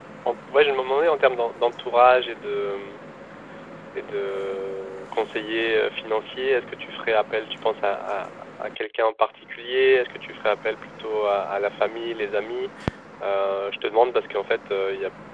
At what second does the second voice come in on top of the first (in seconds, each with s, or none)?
none